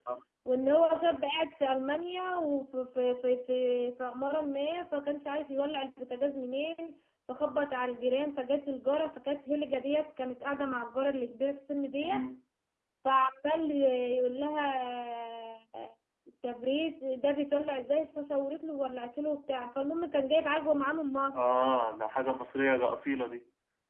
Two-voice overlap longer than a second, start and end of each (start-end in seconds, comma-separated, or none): none